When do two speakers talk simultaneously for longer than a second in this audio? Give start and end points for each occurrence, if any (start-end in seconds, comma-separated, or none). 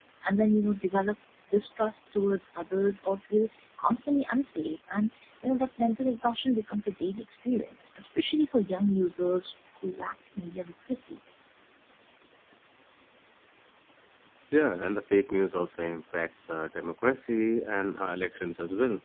none